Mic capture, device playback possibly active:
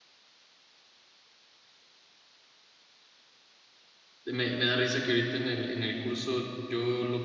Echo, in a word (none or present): none